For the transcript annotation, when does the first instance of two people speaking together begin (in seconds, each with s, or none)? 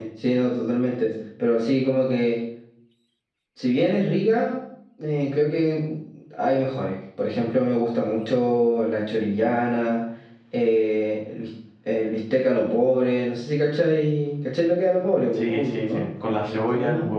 15.3 s